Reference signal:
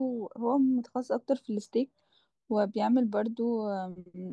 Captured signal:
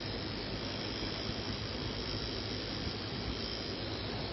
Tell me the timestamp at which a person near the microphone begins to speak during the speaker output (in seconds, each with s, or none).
none